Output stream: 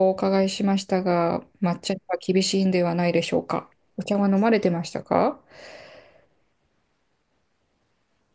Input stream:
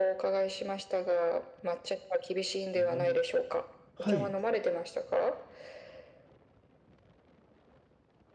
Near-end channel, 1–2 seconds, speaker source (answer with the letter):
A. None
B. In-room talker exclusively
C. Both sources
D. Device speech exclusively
D